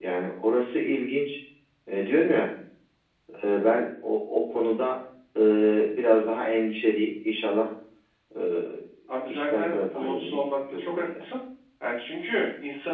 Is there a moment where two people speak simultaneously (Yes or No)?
Yes